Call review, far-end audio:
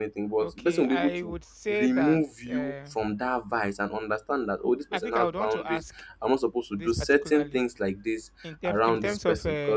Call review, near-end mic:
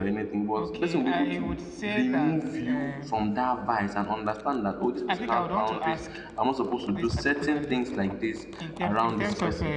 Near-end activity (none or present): none